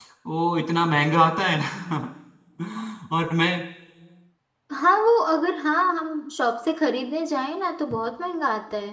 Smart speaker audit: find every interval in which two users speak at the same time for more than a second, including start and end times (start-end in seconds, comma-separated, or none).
none